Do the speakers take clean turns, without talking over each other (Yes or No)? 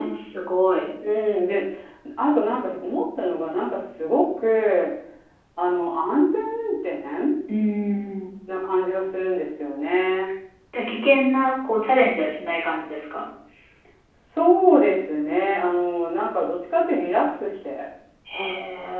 Yes